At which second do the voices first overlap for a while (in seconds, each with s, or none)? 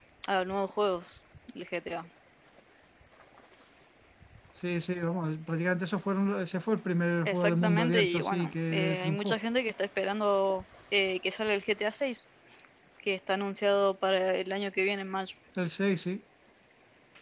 7.2 s